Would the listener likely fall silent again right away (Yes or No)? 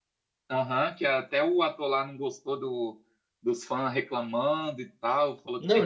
No